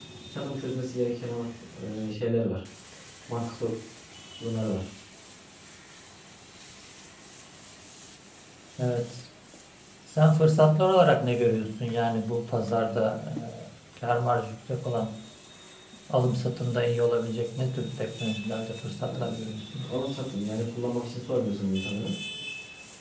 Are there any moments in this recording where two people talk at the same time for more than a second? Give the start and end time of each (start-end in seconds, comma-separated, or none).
none